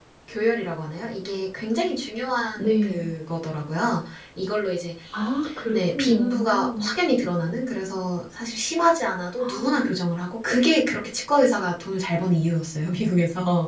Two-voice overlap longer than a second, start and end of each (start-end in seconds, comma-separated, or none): 5.7-6.9